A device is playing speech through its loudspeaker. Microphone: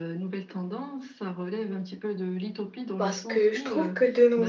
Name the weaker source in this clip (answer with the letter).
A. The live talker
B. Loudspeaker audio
B